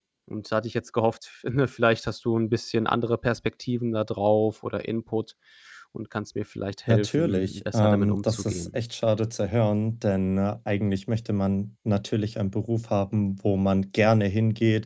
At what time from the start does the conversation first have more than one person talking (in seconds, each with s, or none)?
6.9 s